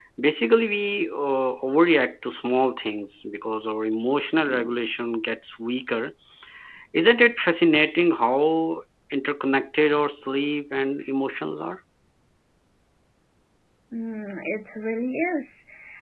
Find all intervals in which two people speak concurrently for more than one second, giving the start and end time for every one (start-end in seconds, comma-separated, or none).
none